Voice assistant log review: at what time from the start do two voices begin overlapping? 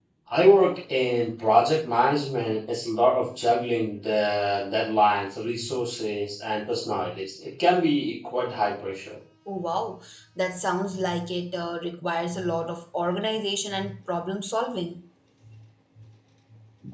none

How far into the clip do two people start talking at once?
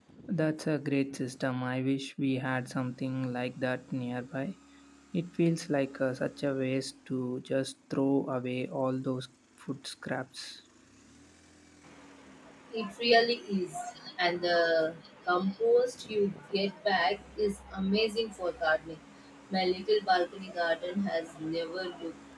none

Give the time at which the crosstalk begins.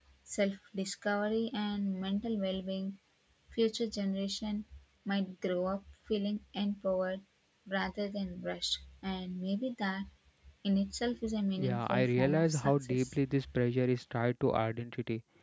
11.6 s

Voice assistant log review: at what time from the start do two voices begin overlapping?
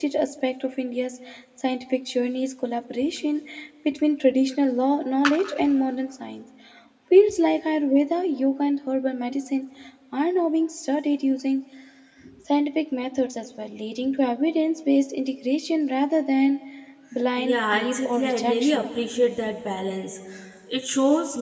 17.4 s

